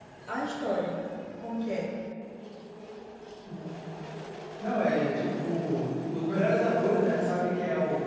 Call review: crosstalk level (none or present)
none